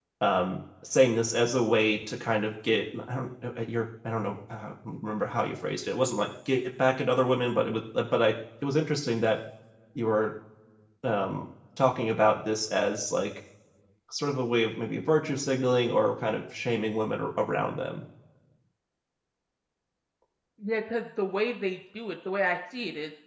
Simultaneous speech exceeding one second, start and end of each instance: none

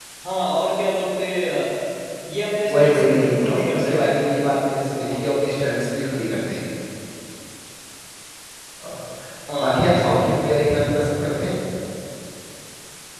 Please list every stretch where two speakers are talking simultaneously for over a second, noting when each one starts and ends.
2.7-4.2

